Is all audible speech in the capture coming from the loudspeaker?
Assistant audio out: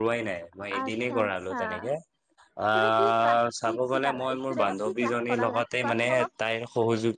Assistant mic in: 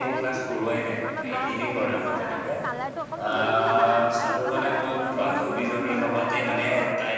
No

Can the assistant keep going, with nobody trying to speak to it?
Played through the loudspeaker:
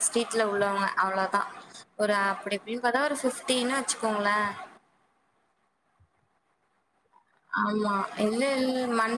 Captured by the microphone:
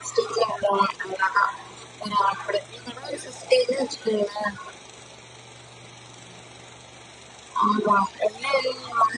Yes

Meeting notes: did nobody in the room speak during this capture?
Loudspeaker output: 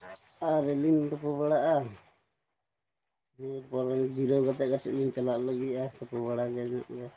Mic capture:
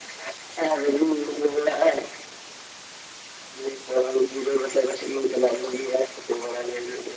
Yes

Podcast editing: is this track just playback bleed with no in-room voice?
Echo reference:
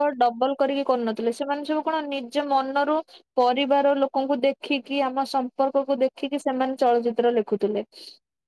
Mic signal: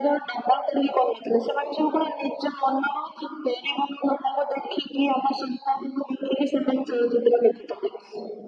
Yes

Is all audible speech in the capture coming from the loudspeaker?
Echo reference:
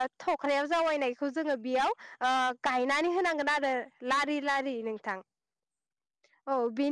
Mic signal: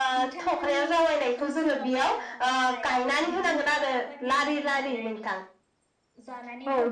No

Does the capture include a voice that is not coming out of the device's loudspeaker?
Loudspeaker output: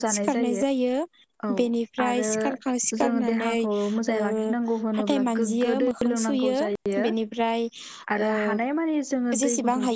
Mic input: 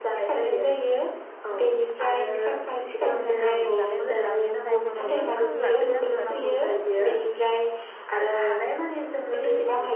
Yes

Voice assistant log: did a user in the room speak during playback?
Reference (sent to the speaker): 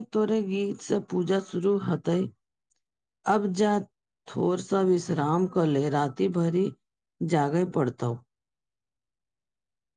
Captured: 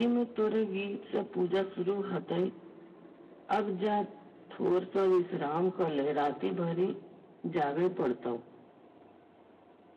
No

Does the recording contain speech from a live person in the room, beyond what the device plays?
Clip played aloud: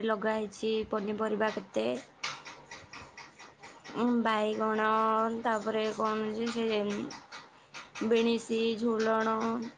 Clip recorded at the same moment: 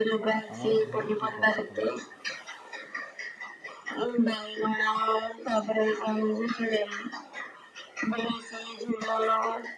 Yes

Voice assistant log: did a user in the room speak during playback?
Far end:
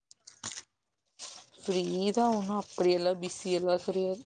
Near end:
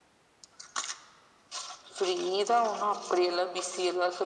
No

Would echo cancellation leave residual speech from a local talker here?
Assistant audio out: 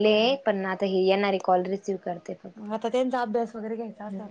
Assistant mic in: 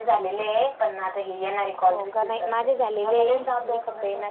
Yes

